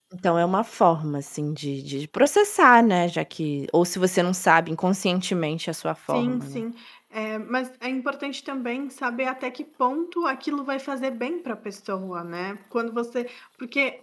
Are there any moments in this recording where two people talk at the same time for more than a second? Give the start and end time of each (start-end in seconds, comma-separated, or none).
none